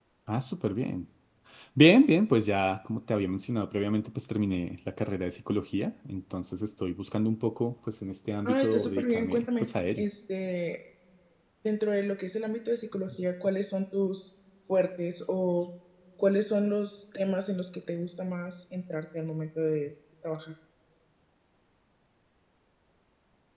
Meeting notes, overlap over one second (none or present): present